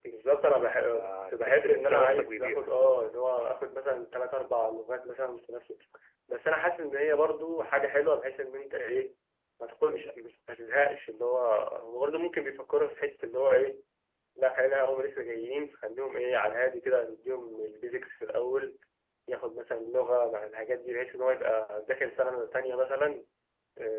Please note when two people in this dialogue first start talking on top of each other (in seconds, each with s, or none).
0.9 s